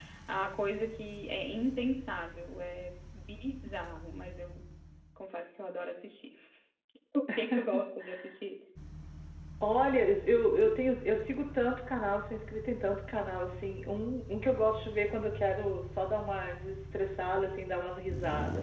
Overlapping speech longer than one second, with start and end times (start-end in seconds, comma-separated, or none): none